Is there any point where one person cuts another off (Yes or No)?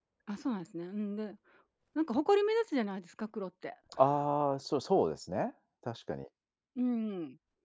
No